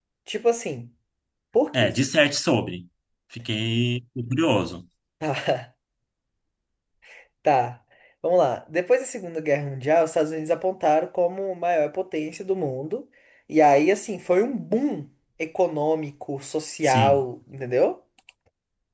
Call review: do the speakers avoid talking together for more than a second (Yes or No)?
Yes